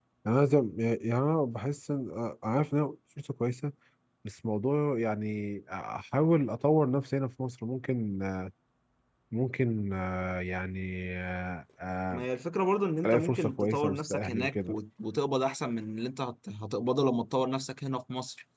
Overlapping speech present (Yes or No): Yes